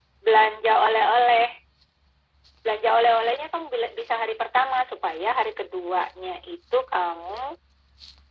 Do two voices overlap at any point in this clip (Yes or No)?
No